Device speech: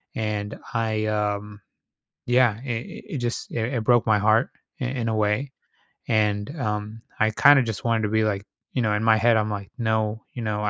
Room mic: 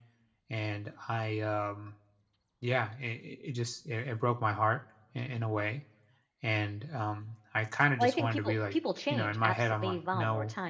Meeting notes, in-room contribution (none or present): present